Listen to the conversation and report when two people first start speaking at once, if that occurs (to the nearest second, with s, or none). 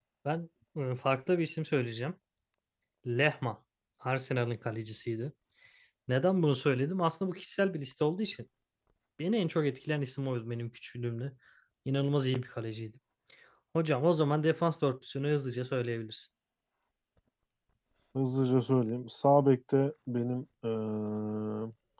none